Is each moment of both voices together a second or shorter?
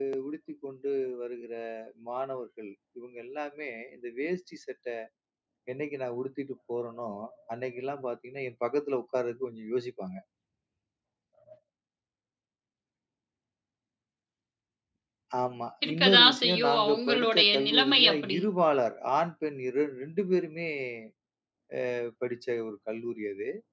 No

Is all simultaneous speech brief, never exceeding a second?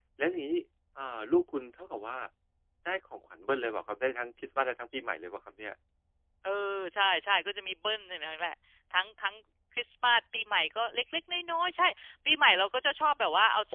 Yes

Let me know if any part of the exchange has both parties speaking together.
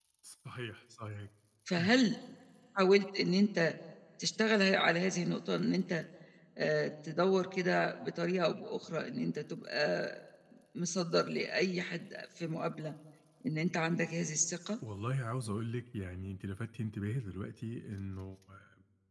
No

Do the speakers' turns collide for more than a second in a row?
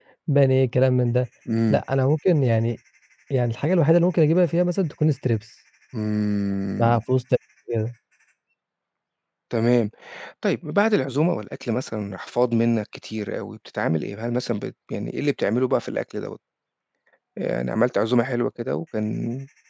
No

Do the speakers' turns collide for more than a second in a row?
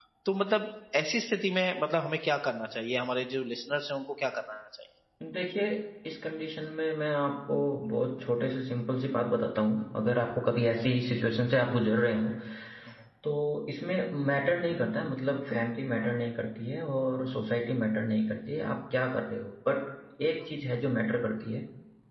No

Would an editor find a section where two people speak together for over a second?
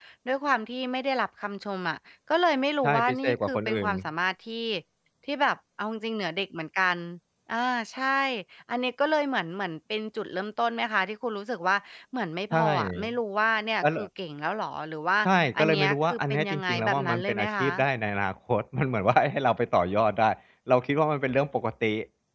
Yes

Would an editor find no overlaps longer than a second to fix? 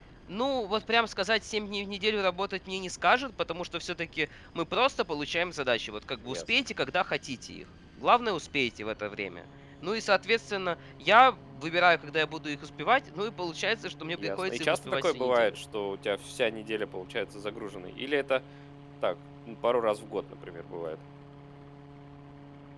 No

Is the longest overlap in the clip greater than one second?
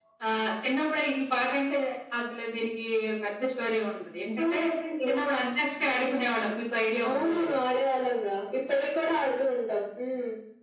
No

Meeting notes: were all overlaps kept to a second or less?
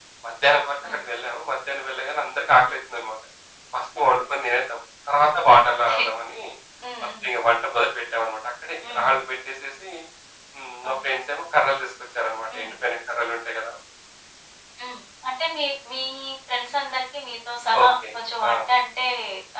Yes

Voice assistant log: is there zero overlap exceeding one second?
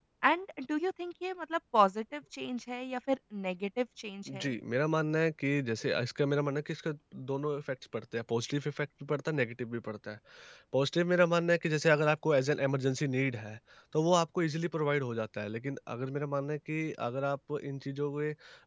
Yes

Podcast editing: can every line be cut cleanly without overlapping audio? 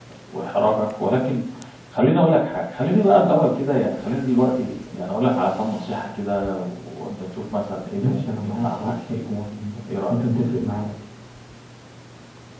No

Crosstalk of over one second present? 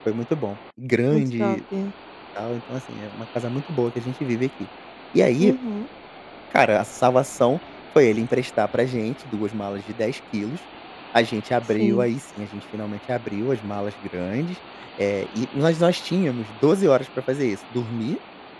No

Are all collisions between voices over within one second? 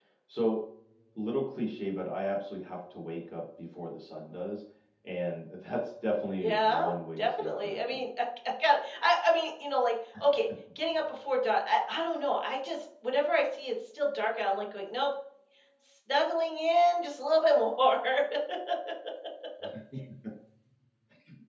No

